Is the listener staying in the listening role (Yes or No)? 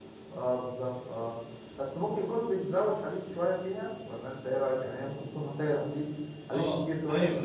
No